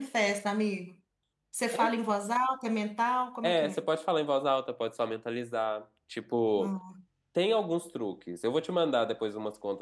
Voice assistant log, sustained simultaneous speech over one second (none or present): none